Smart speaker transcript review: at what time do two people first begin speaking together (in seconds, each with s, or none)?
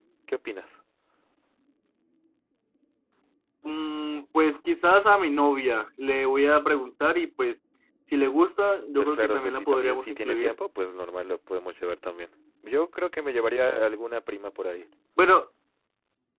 9.0 s